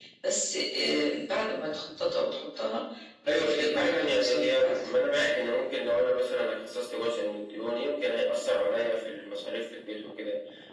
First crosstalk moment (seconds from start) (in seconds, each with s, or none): 3.3 s